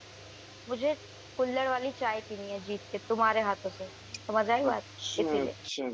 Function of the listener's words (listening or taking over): taking over